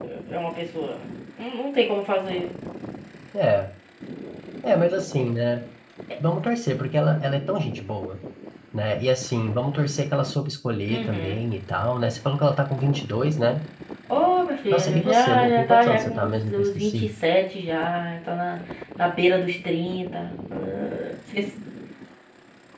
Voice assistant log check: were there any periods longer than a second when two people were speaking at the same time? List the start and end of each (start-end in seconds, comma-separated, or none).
14.7-17.1